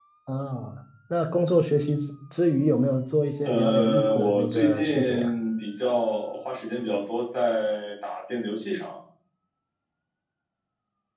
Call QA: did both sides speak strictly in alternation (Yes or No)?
No